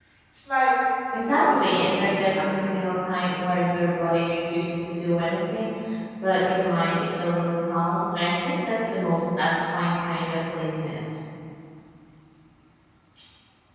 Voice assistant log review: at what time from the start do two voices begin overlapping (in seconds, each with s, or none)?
1.2 s